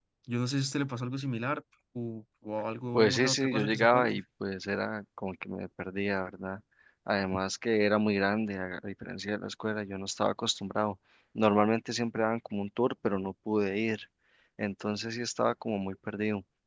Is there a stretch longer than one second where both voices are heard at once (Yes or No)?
Yes